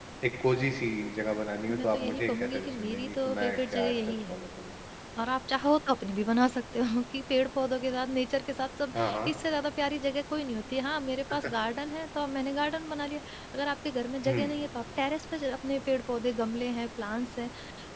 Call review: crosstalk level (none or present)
present